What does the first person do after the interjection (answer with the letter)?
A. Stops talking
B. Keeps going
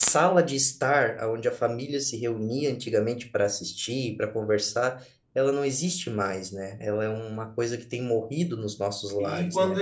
A